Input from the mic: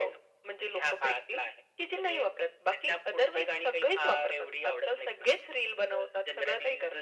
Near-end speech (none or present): none